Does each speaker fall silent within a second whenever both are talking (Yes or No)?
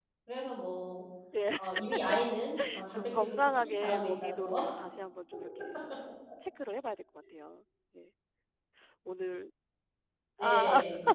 No